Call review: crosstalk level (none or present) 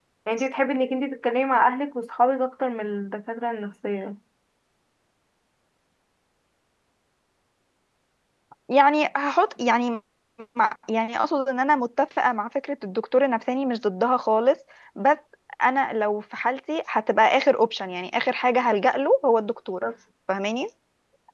none